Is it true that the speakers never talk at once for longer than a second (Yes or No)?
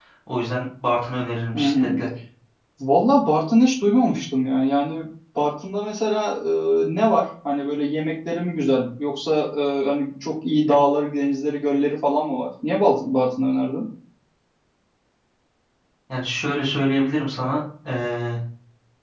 Yes